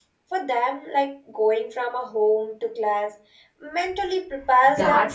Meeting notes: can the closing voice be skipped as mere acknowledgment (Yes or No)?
No